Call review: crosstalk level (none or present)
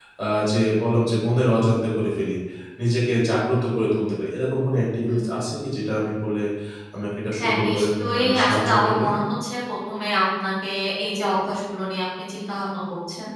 present